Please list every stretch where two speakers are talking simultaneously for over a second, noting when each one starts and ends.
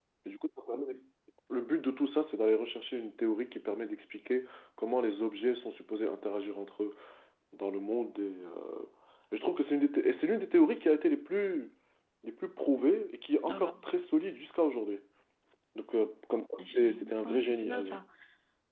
16.6-18.0

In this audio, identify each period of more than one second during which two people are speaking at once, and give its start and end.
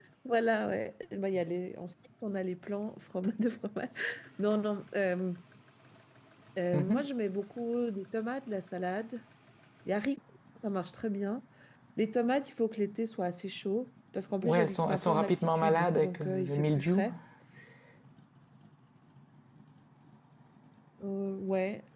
14.4-17.1

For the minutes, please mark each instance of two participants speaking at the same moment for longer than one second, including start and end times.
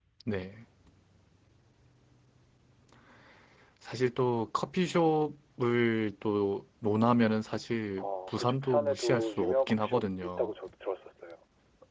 8.0-10.5

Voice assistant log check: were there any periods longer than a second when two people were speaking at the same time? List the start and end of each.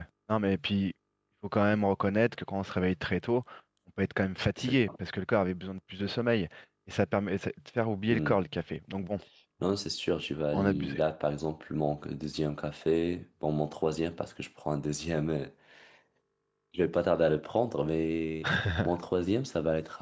none

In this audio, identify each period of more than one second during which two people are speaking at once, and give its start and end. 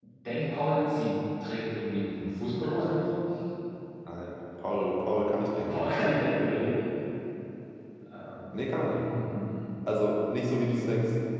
none

